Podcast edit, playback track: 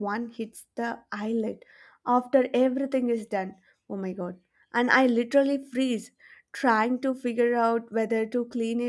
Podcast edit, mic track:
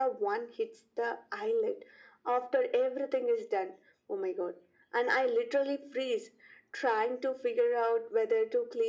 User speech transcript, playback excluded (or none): none